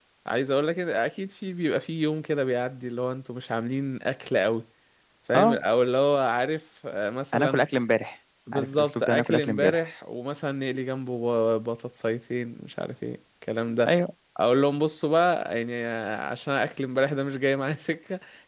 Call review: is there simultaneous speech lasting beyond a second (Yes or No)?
Yes